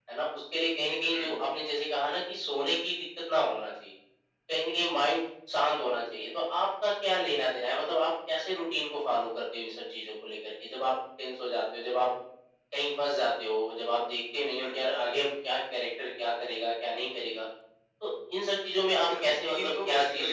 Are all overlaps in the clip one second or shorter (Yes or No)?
No